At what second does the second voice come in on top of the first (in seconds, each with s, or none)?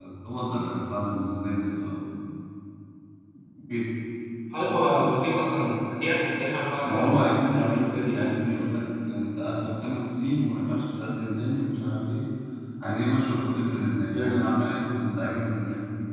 6.8 s